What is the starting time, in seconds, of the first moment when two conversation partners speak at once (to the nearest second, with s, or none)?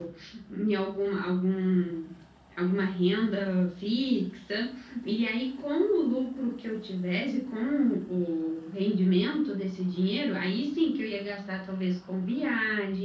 none